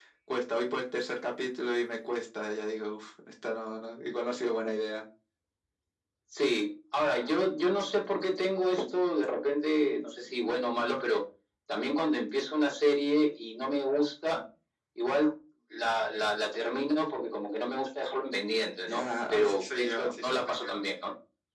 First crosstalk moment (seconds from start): 18.9 s

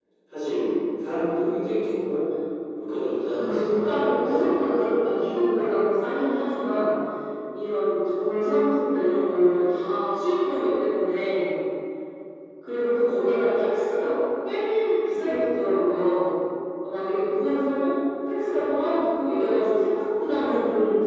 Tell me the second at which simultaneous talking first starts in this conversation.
3.2 s

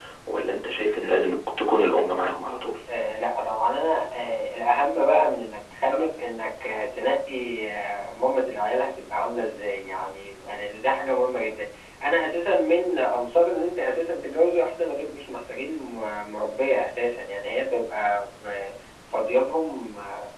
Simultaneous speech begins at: none

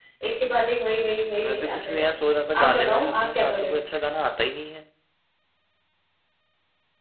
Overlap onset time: 1.4 s

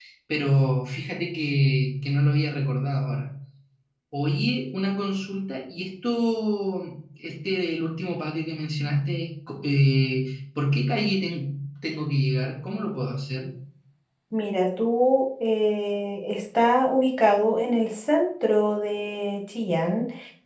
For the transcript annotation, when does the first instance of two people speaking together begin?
none

